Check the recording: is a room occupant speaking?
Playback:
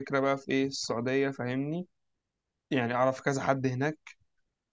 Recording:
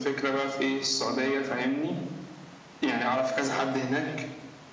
Yes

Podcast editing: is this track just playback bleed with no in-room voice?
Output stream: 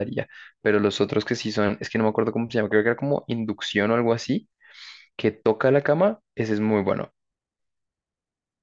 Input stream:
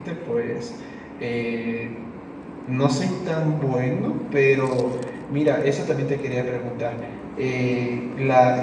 No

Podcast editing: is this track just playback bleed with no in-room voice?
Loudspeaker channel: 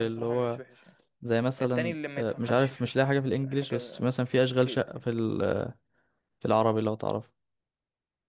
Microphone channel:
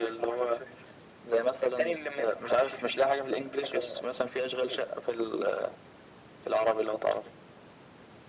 Yes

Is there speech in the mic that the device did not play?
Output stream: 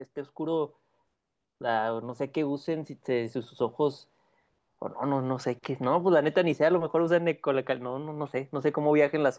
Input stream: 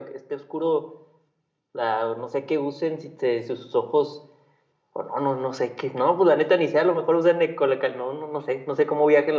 No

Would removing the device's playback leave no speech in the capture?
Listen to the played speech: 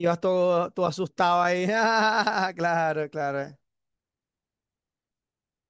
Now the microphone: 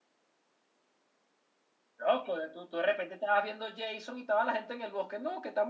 No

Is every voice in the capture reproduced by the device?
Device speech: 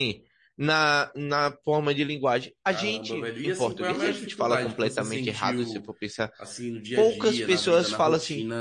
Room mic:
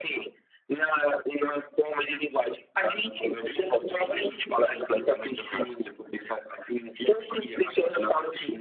Yes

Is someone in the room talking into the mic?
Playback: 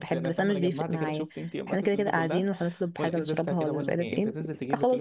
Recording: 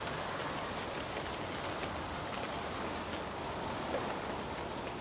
No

